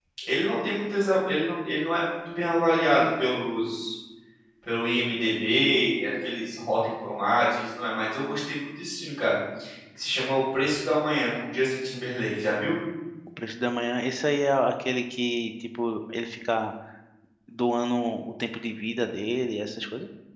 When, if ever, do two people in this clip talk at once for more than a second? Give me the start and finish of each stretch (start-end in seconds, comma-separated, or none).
none